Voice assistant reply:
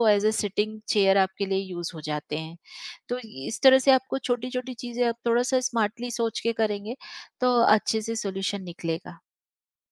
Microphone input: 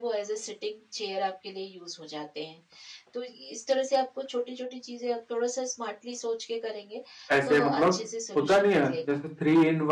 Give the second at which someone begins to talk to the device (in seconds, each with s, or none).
7.4 s